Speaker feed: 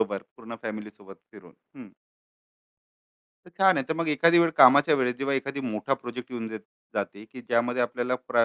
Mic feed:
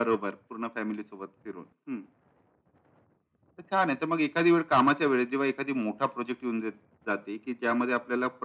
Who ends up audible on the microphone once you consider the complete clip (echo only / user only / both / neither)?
echo only